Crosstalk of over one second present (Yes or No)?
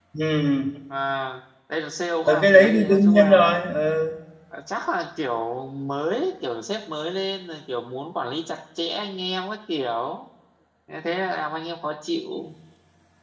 Yes